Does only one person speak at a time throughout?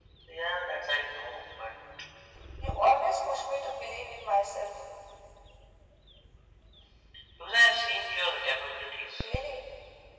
Yes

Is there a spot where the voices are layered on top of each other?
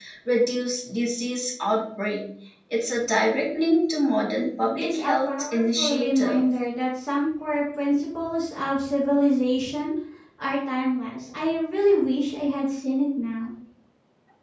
Yes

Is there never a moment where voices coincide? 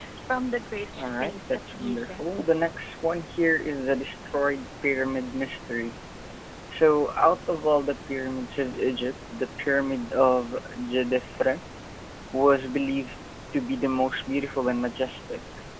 No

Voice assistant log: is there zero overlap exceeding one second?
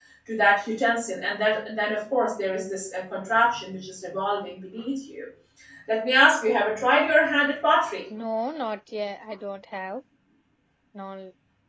Yes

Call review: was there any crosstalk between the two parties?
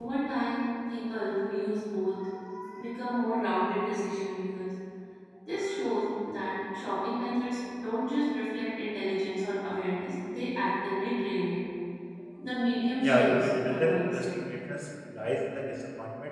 Yes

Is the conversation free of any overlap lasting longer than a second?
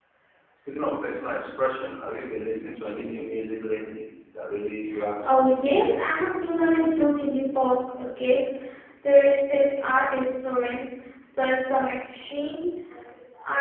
Yes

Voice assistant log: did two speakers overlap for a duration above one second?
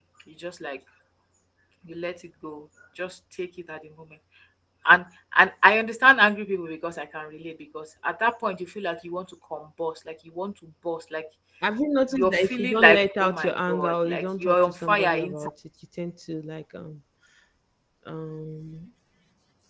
Yes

